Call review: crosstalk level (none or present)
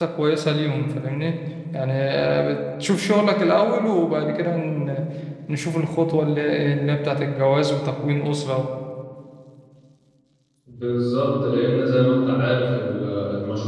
none